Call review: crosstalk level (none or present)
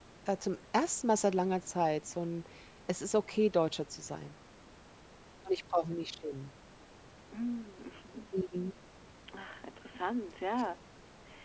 none